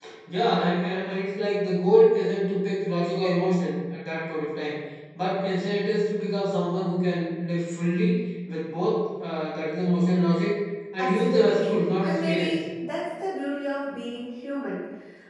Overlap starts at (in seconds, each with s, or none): 11.0 s